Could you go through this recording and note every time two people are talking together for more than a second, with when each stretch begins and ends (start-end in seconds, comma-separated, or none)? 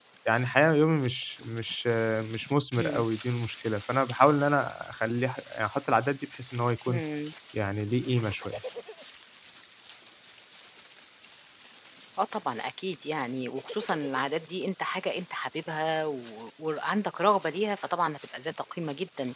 none